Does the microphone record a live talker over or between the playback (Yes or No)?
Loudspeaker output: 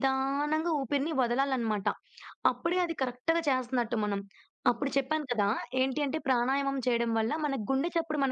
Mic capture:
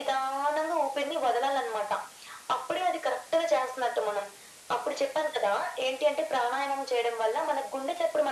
No